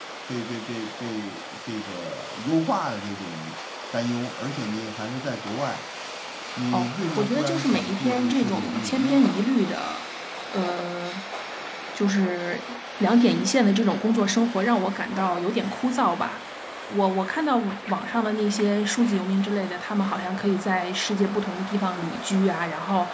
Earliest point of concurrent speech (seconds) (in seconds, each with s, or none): 6.7 s